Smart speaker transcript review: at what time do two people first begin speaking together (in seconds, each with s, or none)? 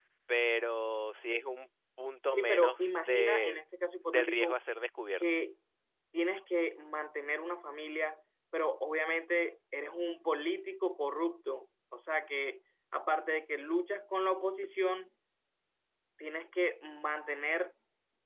2.4 s